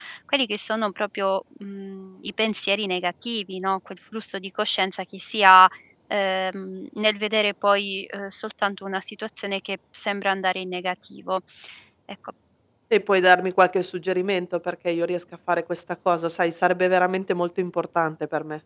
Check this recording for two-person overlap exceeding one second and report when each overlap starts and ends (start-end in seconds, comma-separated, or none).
none